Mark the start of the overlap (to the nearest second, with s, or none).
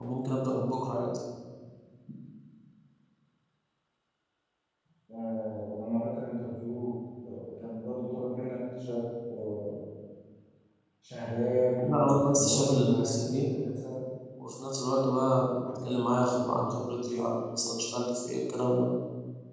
12 s